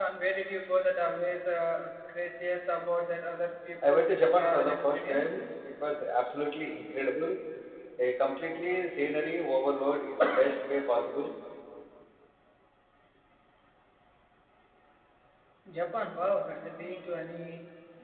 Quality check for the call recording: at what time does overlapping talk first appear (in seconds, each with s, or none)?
3.9 s